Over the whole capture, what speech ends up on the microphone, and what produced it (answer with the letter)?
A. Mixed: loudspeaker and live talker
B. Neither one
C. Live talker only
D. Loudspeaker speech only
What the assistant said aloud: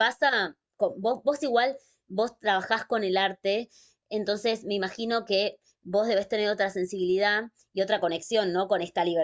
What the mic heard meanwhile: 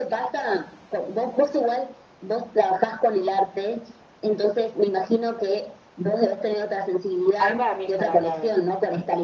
A